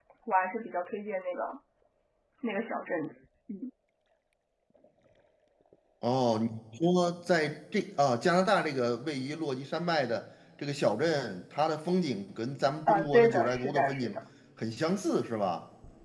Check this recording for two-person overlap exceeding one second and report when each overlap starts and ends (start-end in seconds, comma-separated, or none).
12.9-14.2